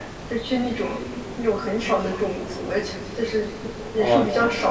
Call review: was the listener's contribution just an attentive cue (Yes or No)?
Yes